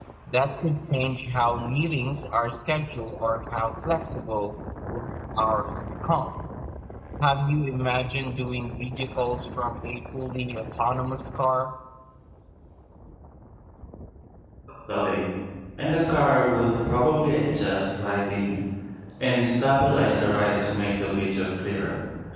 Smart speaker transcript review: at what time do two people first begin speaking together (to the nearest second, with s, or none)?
none